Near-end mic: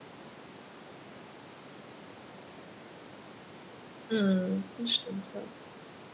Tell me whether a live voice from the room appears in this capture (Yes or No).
Yes